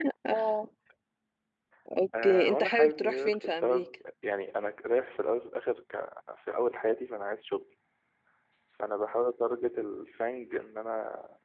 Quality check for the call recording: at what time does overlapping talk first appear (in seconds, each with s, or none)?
2.2 s